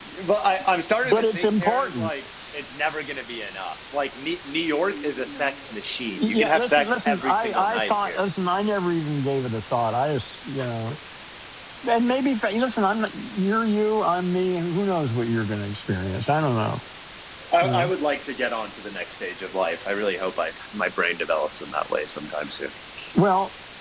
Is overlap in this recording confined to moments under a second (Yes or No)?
No